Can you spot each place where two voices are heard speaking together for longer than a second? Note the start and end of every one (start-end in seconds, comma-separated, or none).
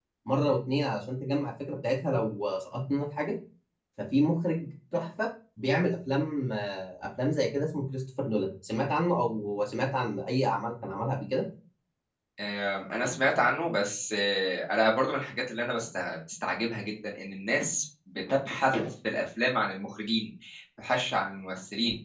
none